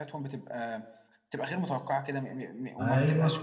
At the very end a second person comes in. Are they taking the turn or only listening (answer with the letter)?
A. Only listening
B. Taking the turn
A